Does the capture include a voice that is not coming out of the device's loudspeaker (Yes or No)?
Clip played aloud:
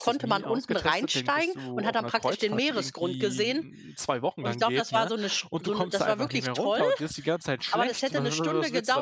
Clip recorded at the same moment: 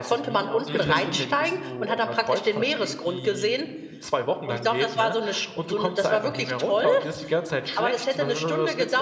Yes